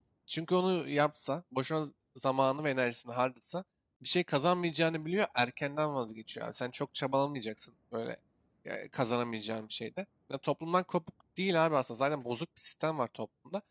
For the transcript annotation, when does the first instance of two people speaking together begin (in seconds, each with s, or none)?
none